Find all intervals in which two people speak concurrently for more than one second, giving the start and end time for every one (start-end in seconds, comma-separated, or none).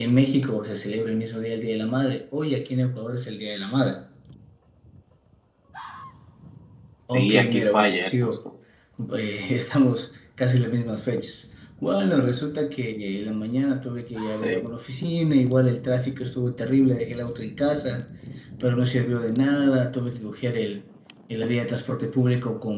7.1-8.3